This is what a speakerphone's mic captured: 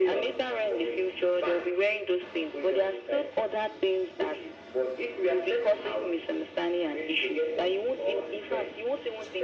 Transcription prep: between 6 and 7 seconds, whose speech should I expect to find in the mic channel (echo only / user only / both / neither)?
echo only